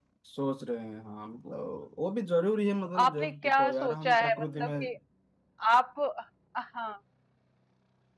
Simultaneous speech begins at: 2.9 s

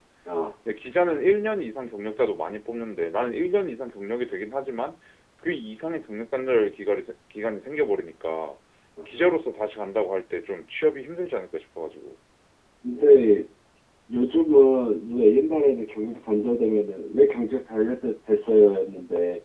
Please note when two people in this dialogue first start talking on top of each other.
none

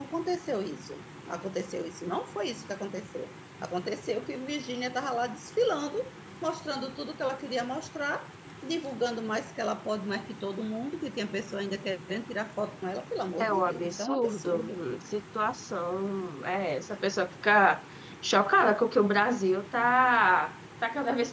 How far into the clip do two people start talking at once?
13.4 s

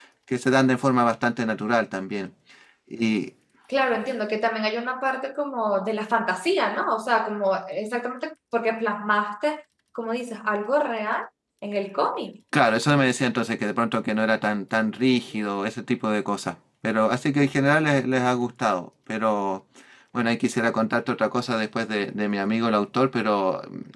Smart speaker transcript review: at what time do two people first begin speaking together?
none

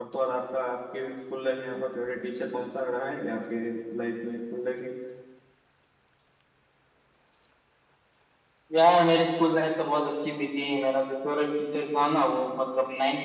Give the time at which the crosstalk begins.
none

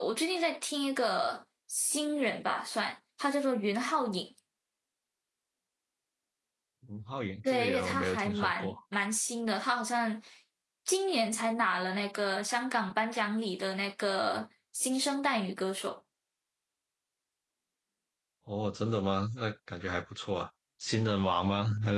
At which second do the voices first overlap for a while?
7.5 s

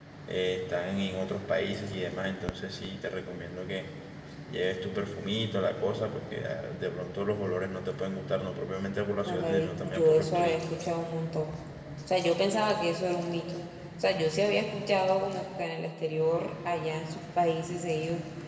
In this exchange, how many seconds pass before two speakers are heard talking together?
9.3 s

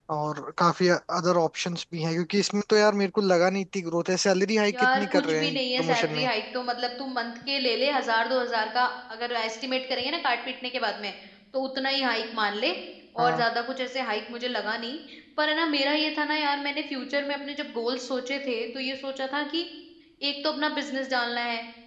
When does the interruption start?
4.7 s

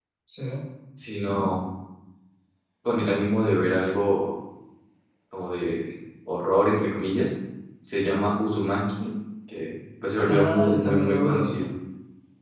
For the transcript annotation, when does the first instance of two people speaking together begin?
10.2 s

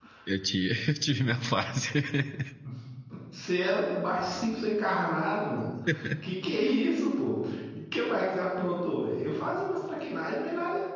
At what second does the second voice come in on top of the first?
none

